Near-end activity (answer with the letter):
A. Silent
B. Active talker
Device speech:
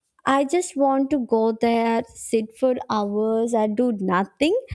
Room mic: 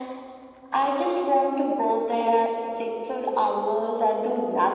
A